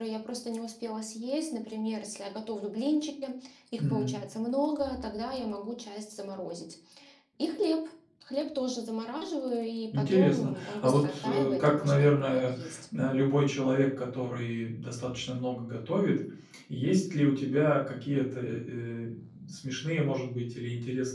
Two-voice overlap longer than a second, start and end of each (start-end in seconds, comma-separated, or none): 9.9-12.5